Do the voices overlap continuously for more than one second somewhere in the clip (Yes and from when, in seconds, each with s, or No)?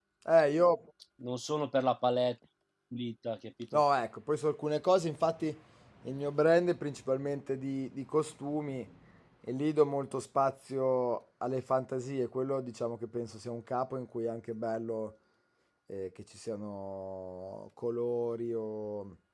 No